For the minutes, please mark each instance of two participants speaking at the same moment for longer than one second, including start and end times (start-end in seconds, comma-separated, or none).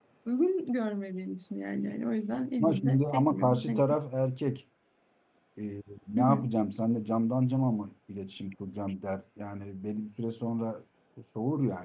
2.6-3.8